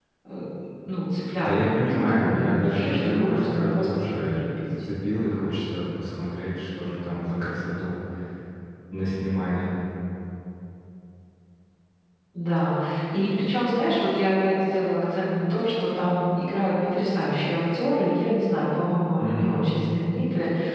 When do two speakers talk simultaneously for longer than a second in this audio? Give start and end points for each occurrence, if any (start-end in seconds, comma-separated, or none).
1.4-4.7